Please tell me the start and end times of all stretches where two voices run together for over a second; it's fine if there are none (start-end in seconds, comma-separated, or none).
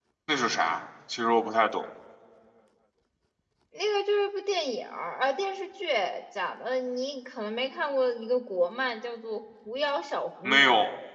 none